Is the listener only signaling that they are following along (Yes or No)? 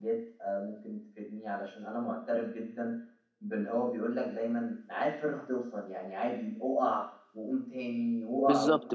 No